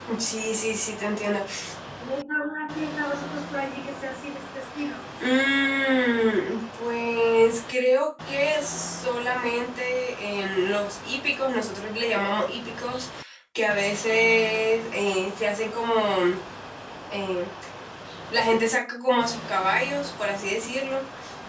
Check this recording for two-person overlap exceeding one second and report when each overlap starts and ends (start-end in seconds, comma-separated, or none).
none